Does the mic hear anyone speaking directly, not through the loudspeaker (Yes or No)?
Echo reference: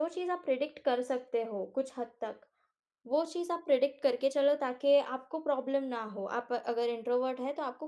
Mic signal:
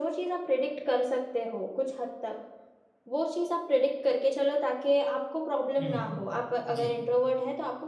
Yes